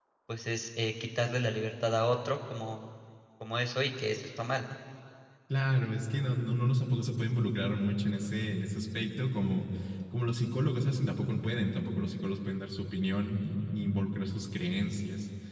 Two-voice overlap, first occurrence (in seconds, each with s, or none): none